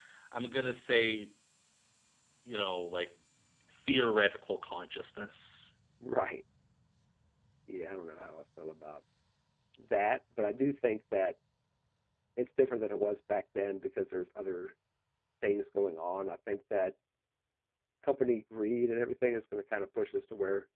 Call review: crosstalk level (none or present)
none